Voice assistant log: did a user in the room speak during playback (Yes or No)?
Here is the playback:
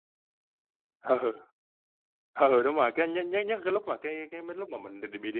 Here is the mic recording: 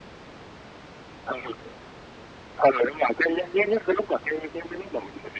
No